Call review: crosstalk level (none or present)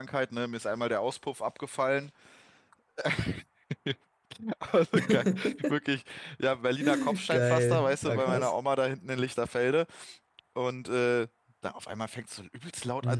present